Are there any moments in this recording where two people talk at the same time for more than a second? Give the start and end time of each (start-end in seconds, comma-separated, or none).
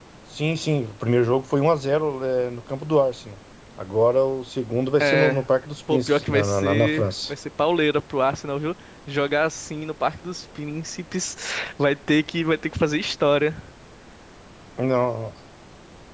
5.9-7.3